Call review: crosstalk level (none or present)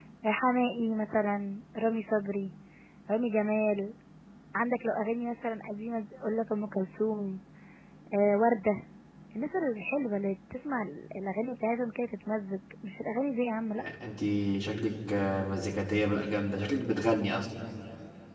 none